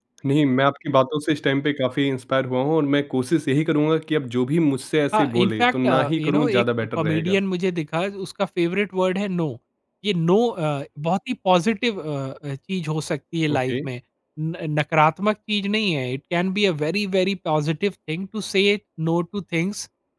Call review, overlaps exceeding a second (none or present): present